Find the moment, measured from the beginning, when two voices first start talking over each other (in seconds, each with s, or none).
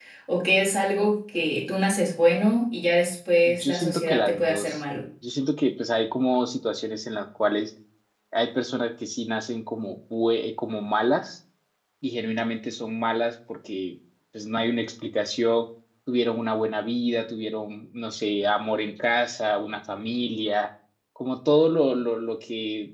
3.5 s